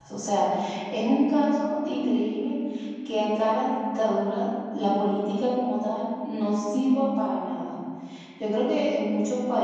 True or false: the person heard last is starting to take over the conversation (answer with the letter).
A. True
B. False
B